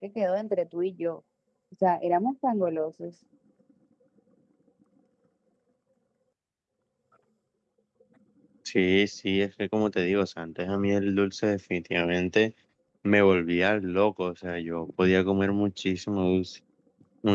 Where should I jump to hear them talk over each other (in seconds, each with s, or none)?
none